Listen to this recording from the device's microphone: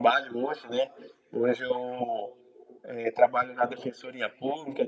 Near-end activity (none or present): none